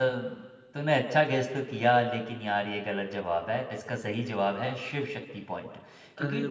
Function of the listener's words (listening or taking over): listening